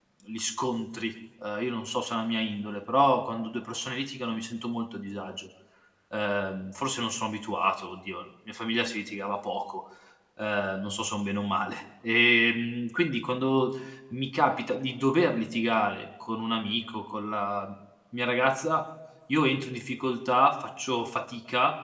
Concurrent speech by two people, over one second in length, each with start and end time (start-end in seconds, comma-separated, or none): none